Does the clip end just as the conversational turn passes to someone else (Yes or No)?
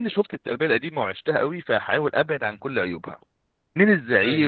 No